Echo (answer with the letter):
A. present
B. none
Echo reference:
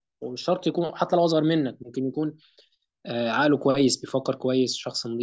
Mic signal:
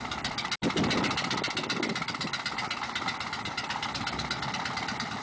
B